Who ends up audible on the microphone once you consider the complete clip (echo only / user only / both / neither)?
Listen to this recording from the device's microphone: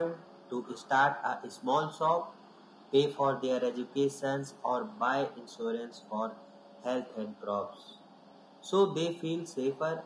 echo only